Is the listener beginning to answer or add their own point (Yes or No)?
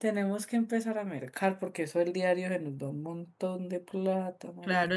Yes